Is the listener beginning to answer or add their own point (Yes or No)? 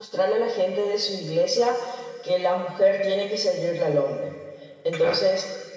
No